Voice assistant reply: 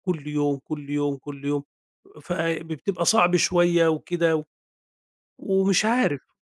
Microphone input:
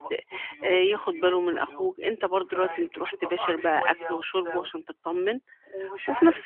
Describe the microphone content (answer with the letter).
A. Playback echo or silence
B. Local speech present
B